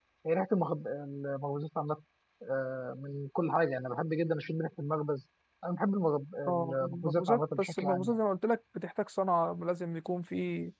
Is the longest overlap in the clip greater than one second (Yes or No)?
Yes